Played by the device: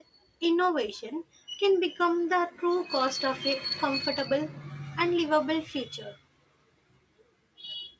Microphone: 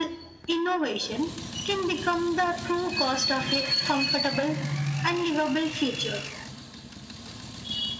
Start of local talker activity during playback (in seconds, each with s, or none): none